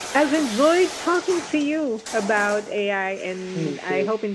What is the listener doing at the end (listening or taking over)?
listening